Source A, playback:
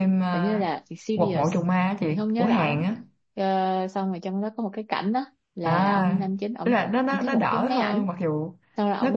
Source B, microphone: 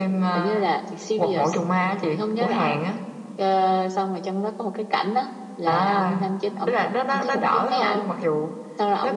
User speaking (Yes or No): No